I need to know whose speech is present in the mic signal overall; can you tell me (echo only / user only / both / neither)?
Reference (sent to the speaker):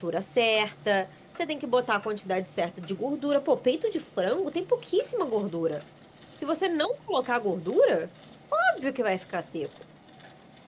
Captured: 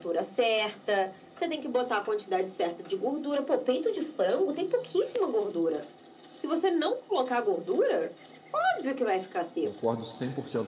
both